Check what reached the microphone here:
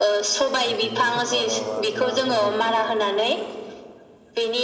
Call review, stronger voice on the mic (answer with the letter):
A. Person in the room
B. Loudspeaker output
B